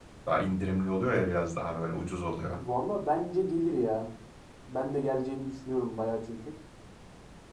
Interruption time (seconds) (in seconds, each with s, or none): none